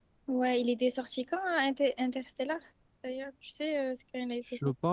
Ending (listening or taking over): taking over